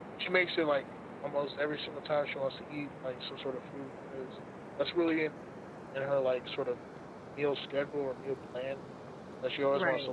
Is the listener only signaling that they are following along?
Yes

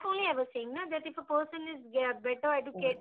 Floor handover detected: No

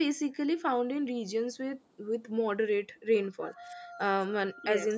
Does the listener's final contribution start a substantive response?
No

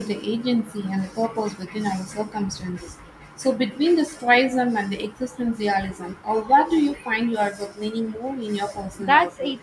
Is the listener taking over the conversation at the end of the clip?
Yes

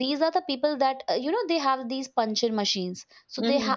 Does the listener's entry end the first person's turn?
No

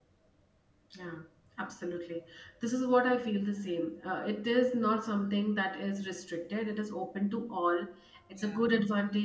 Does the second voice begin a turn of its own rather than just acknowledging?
No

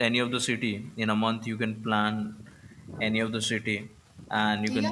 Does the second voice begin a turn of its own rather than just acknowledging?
No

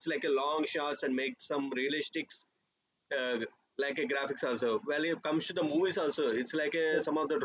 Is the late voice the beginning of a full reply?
No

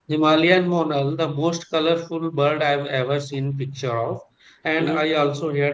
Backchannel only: Yes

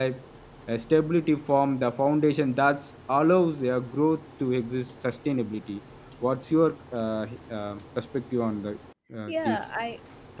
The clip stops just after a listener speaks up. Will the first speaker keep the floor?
No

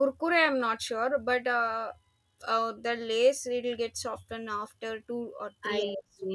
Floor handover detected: Yes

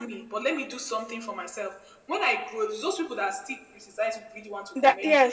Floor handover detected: Yes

